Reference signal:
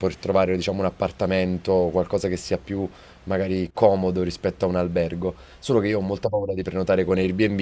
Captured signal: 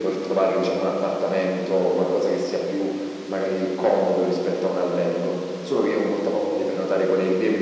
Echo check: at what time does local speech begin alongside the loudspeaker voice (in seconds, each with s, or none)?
none